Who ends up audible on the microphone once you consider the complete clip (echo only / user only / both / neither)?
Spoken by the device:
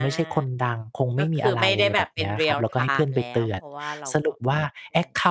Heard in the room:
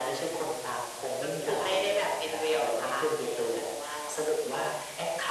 echo only